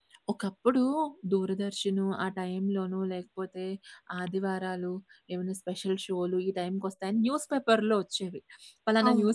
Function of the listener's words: listening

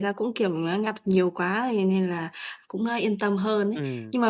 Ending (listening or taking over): listening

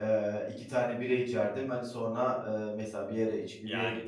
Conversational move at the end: listening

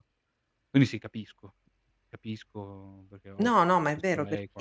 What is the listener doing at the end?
taking over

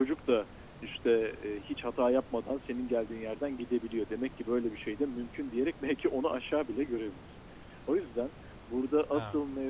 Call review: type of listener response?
listening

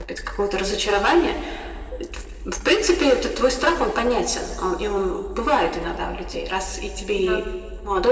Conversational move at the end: listening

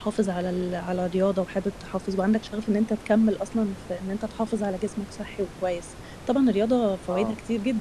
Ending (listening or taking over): listening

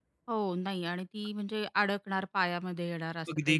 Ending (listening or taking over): taking over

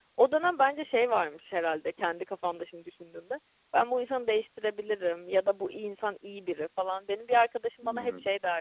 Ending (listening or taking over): listening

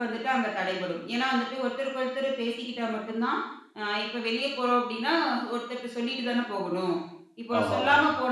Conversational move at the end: listening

